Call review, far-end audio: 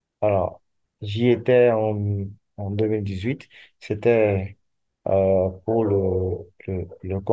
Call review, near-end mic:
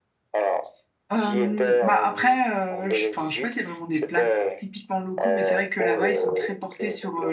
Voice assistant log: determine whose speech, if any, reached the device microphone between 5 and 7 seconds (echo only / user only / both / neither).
both